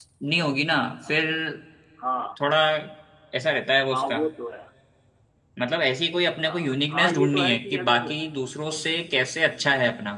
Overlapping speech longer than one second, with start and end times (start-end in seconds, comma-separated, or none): 6.4-8.1